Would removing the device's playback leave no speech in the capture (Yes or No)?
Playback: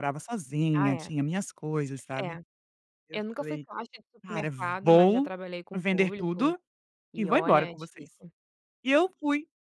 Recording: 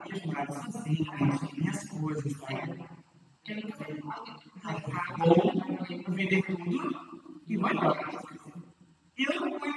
Yes